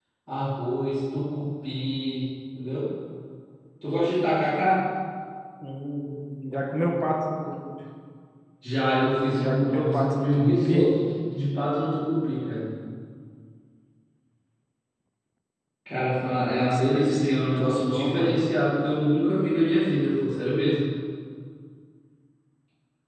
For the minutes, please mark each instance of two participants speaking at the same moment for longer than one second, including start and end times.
9.3-10.9, 16.3-18.4

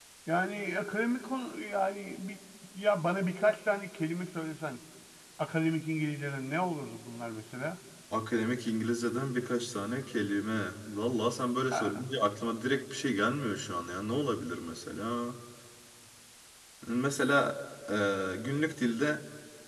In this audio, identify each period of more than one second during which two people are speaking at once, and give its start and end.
none

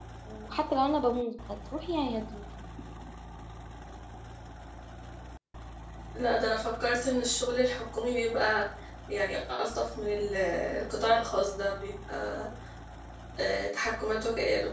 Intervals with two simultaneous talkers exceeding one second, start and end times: none

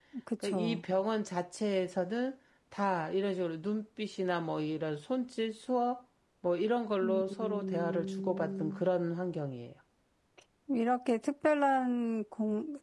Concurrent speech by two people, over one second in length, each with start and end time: 7.0-8.8

